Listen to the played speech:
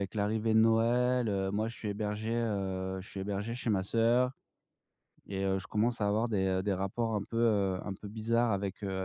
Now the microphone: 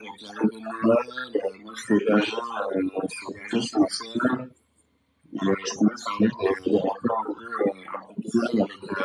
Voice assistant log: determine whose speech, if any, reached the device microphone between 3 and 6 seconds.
echo only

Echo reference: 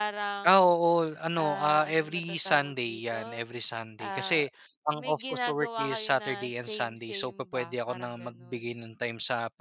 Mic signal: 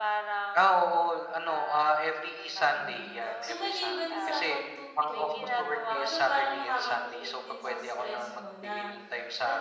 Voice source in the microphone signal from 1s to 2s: echo only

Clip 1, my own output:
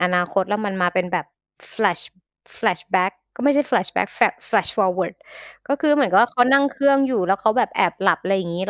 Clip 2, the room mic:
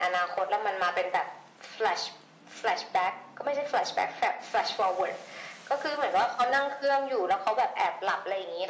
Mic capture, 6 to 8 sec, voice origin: echo only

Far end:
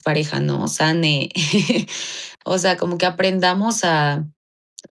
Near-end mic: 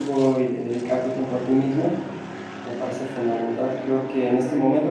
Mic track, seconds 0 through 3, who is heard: user only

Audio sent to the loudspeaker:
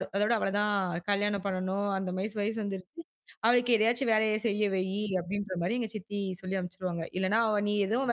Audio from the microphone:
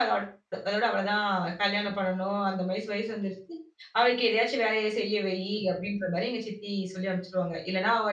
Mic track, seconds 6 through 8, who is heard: echo only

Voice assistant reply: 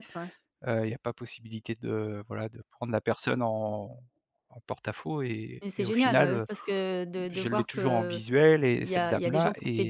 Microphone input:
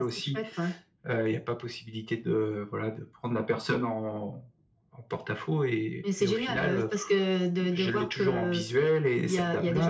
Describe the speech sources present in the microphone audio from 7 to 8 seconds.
echo only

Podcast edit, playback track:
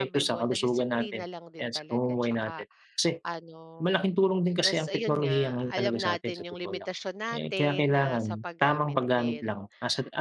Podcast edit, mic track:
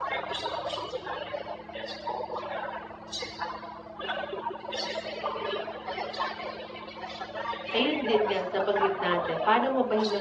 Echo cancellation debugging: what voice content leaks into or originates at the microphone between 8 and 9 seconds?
both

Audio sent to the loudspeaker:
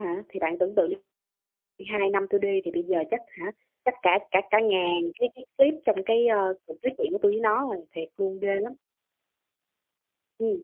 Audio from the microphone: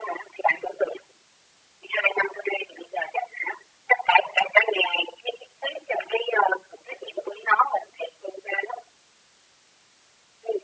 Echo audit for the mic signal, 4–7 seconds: echo only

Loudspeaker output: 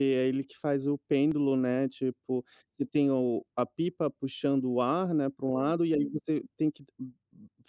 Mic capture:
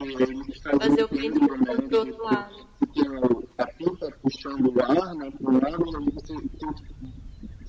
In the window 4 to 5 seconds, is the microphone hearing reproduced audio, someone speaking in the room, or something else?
echo only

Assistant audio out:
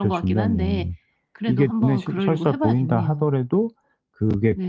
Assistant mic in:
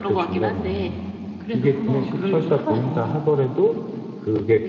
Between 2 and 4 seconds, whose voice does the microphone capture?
echo only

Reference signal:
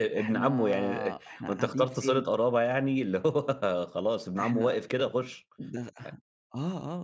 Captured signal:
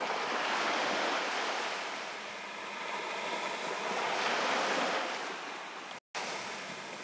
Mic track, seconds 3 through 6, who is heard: neither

